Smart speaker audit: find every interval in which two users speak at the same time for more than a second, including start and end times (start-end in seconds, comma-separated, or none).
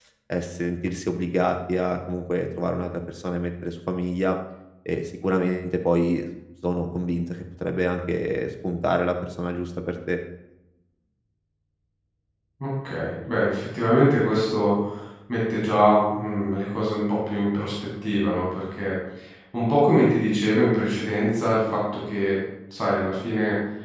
none